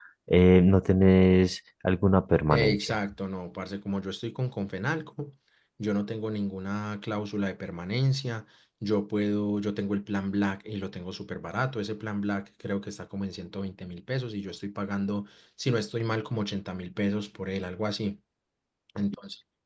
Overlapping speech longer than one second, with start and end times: none

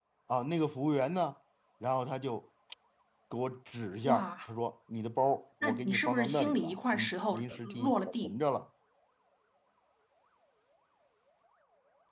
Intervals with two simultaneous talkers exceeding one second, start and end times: 5.6-8.3

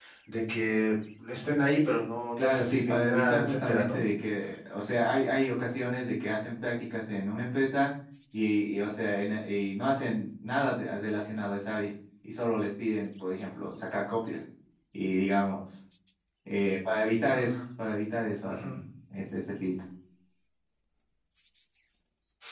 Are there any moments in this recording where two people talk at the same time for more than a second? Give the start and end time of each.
2.4-4.0

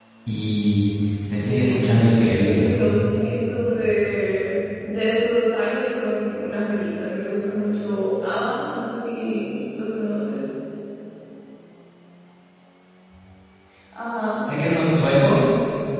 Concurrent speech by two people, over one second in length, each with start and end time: 1.4-2.6

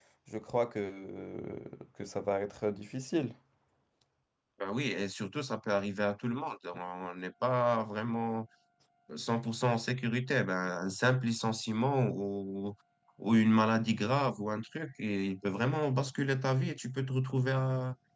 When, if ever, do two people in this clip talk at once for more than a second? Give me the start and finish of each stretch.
none

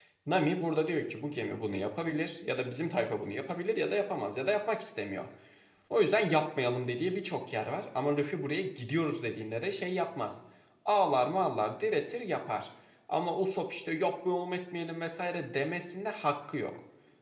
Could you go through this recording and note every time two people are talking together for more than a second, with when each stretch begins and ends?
none

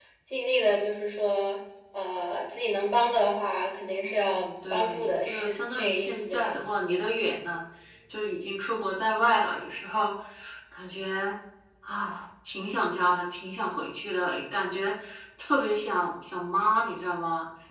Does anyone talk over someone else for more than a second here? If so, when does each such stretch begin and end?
4.0-6.5

